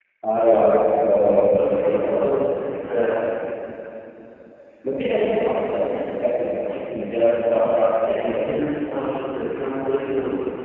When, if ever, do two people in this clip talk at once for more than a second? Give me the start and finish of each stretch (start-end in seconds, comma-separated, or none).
1.5-3.0